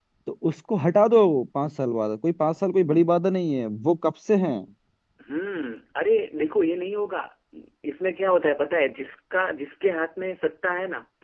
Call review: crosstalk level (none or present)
none